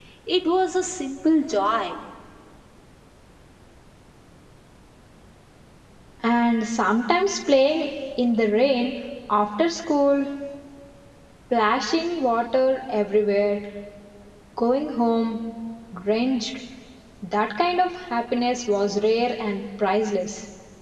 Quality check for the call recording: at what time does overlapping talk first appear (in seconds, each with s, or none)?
none